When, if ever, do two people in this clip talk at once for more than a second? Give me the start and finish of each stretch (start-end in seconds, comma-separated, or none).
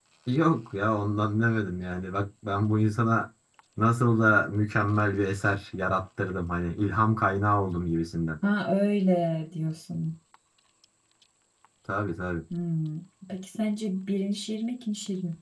none